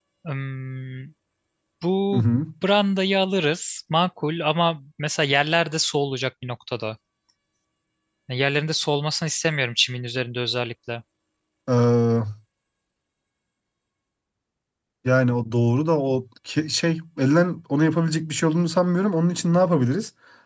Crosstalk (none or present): none